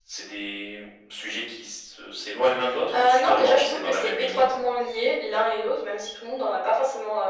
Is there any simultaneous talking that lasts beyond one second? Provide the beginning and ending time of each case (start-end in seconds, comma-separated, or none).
2.9-4.5